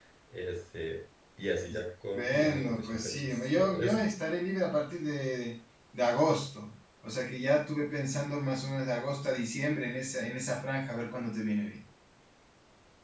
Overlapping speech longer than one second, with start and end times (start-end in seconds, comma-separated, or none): 2.1-4.0